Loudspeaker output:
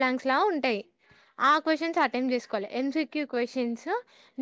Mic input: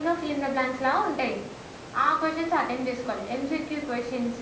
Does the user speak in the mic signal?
No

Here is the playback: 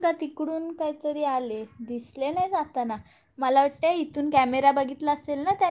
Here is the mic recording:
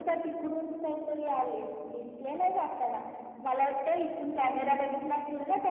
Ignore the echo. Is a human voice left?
No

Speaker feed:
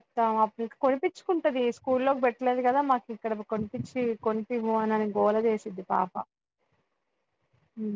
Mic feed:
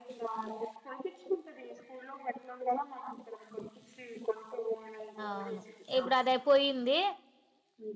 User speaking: Yes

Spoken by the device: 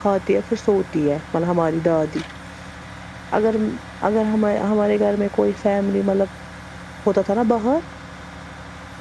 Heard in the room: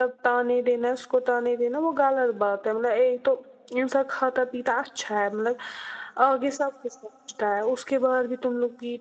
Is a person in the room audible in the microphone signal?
Yes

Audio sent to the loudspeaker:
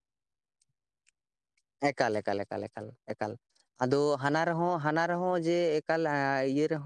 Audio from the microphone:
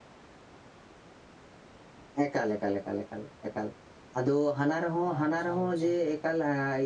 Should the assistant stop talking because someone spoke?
Yes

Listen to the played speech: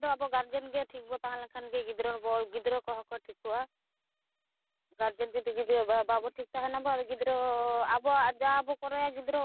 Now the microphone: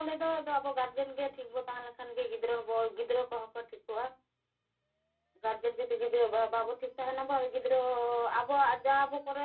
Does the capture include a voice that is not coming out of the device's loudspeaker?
No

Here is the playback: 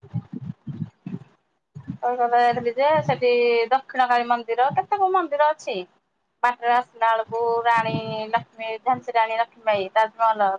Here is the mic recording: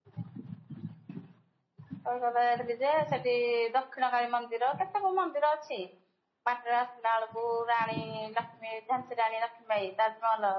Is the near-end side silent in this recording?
Yes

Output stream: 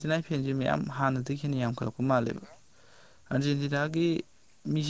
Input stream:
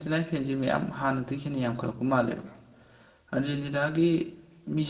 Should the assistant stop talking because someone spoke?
No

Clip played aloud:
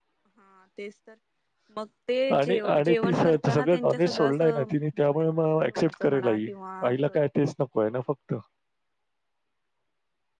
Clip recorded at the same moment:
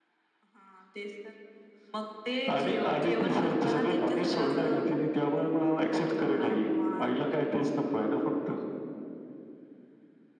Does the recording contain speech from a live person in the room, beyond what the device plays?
No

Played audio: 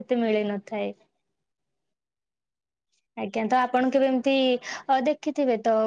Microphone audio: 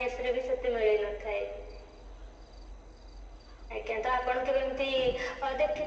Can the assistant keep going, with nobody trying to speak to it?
Yes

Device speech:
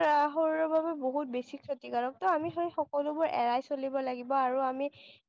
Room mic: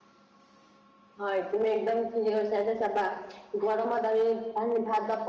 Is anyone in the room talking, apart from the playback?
Yes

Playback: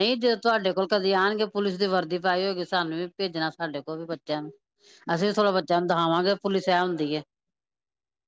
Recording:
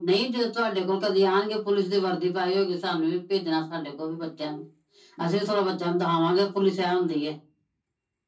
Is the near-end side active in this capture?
No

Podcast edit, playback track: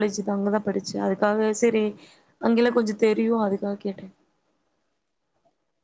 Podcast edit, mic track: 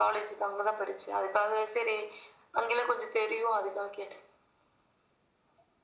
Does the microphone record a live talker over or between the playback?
No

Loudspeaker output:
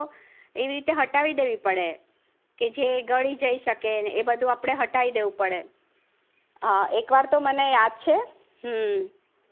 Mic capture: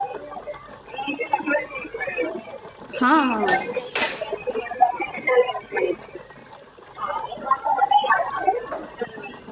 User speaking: Yes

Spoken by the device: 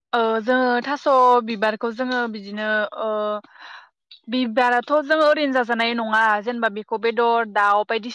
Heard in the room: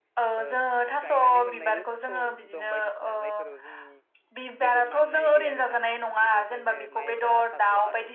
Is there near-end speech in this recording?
Yes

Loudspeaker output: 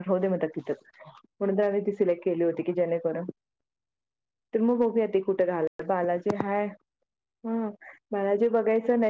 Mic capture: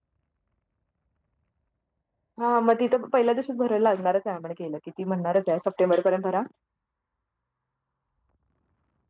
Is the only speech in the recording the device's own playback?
No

